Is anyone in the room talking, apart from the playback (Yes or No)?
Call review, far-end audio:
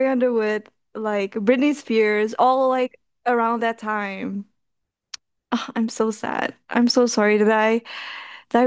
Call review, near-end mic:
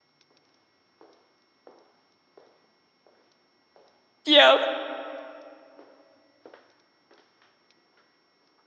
Yes